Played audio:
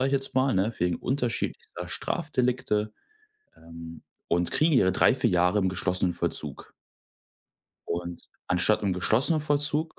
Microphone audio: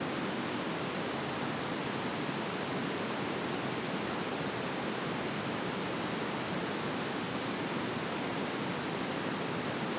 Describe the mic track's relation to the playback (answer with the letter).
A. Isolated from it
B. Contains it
A